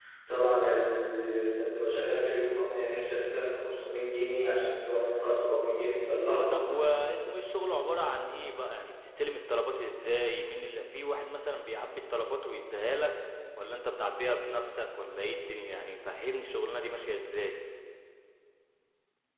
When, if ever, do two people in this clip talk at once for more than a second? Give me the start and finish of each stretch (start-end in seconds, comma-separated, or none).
none